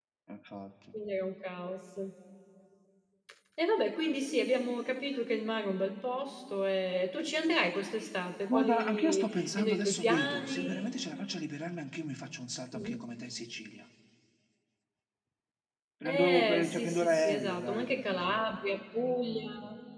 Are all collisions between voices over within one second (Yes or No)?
No